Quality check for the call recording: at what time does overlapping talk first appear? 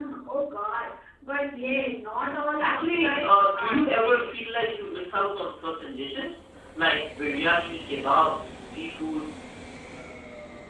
2.6 s

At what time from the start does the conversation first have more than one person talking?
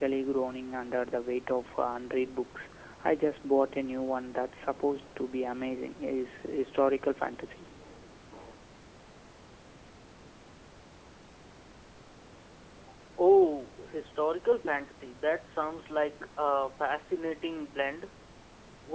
none

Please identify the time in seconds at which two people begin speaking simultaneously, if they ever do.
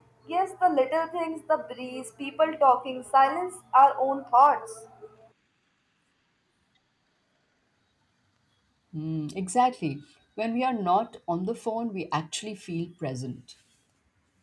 none

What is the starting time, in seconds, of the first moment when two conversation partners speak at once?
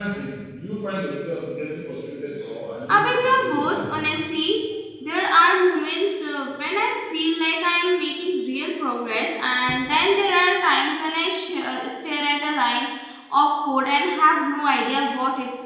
2.9 s

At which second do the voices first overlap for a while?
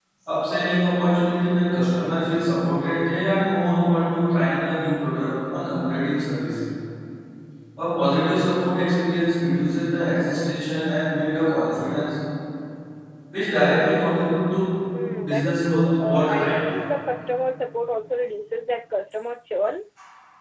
15.2 s

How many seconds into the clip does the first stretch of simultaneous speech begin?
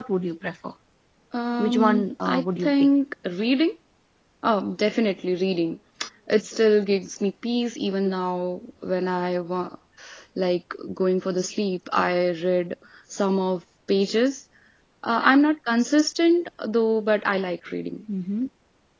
1.6 s

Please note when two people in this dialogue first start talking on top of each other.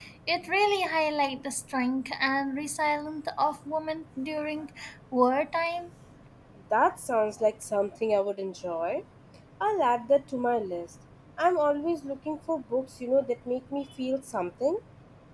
none

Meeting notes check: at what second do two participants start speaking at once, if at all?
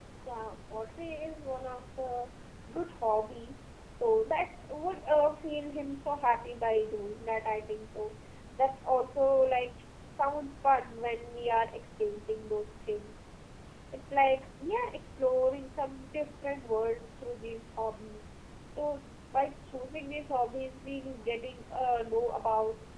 none

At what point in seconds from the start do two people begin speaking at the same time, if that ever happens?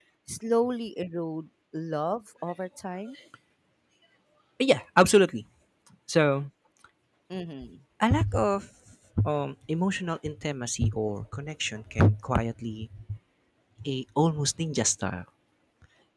none

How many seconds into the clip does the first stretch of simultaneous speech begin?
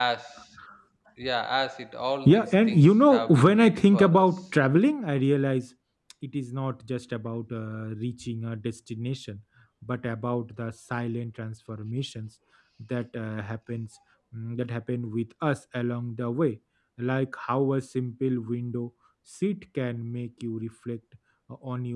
2.3 s

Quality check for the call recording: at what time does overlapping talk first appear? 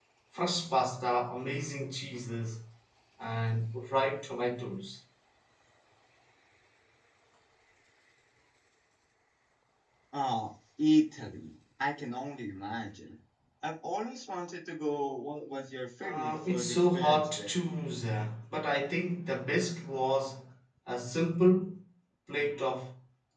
16.0 s

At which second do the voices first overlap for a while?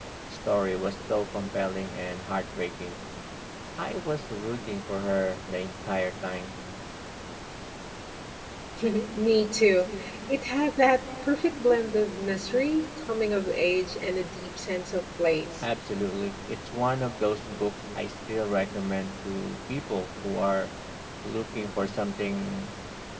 none

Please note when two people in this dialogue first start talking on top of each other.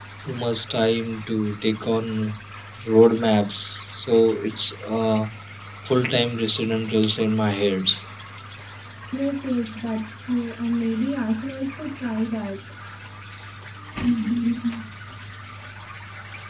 none

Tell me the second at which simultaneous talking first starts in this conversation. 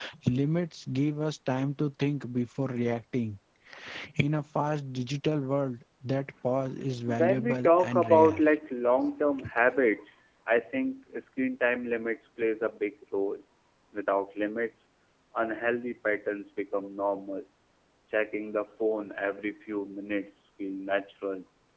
7.1 s

